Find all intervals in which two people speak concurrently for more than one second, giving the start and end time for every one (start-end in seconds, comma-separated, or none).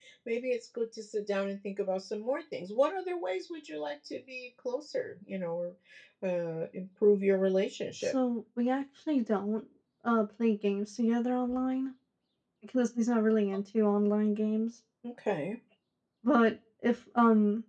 none